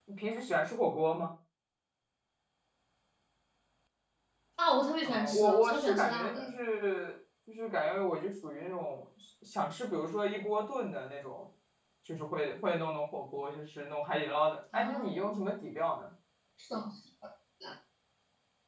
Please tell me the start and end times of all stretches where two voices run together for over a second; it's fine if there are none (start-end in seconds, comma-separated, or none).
5.0-6.5